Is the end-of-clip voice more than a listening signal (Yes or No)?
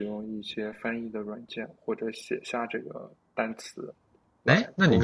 Yes